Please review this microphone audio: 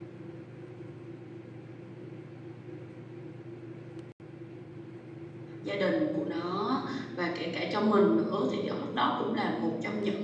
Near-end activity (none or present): present